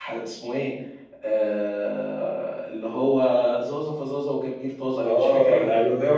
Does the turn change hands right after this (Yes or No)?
Yes